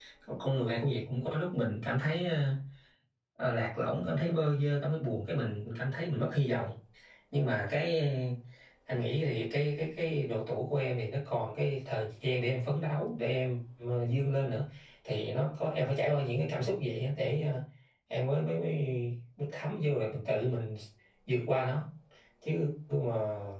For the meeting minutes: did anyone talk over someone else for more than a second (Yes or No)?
No